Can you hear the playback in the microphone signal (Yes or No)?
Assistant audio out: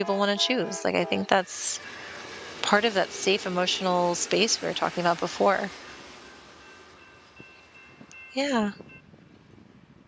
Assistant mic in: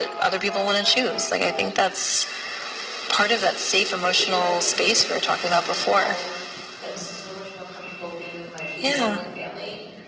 Yes